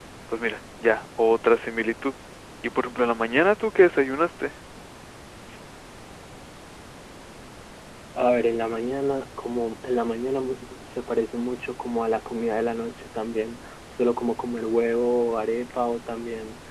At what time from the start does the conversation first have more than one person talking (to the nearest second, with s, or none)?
none